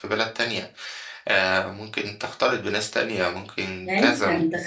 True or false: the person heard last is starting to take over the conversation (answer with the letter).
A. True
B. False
A